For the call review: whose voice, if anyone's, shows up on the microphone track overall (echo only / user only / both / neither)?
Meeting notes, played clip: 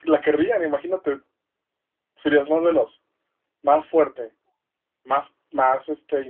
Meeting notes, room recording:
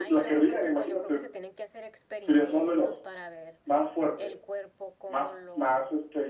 both